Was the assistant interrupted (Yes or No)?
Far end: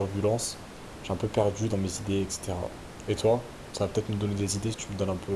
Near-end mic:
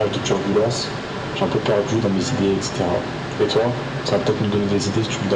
No